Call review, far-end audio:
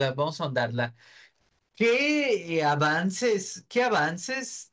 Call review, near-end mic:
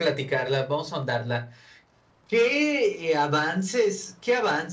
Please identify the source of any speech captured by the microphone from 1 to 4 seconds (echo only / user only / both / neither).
echo only